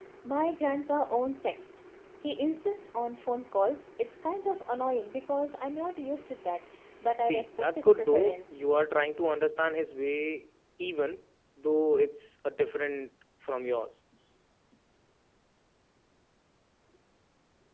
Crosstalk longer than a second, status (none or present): present